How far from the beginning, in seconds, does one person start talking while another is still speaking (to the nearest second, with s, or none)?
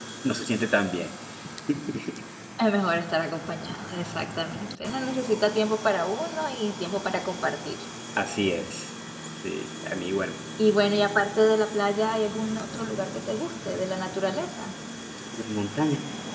none